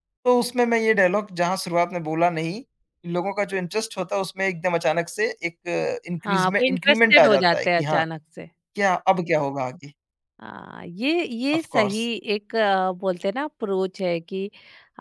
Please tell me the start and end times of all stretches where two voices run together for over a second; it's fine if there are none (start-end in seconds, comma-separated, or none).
6.2-8.0